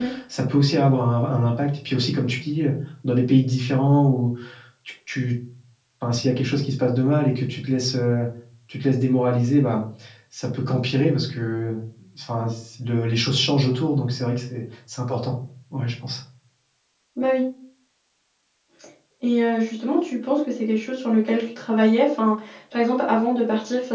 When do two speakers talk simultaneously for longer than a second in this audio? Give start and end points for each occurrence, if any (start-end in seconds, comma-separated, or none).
none